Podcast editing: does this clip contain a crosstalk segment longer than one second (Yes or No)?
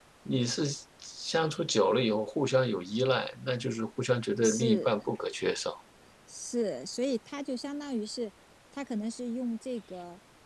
No